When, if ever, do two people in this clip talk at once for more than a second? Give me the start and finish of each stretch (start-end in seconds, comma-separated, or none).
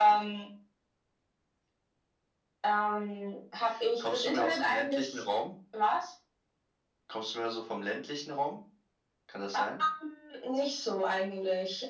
4.0-5.2